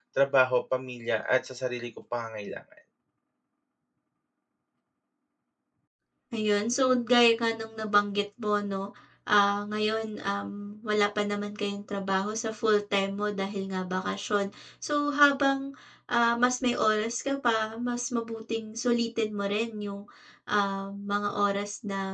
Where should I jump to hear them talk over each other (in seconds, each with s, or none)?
none